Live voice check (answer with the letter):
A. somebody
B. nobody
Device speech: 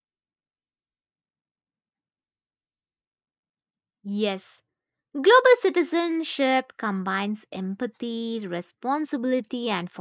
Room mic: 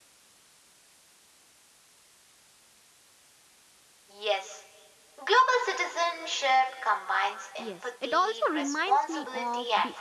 A